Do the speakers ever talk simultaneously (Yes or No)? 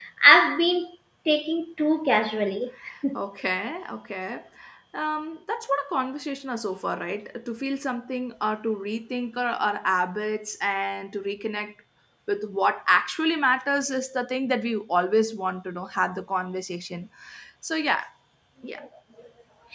No